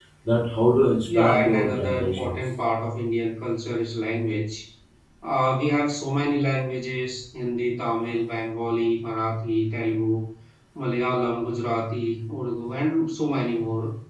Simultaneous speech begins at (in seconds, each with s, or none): 1.1 s